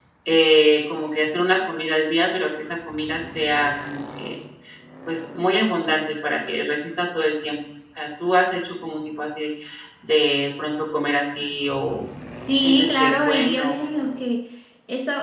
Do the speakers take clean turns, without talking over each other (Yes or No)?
No